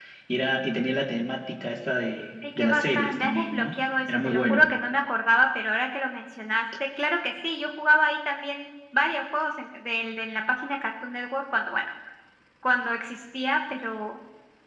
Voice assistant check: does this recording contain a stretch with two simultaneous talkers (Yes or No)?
Yes